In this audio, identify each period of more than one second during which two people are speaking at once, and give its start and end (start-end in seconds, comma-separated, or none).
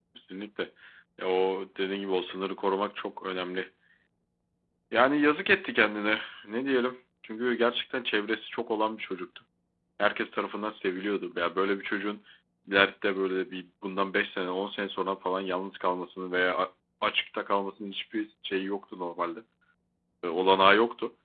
none